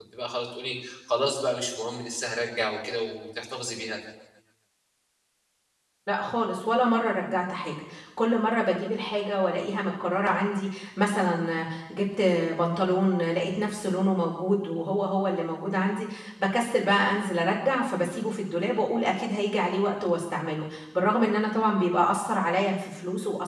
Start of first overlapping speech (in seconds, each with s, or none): none